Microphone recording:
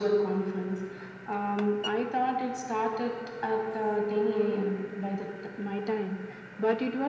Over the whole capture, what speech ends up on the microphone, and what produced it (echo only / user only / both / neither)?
echo only